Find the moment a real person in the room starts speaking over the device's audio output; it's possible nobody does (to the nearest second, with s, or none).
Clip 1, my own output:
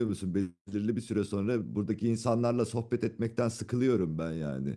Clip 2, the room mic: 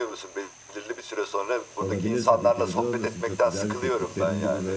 2 s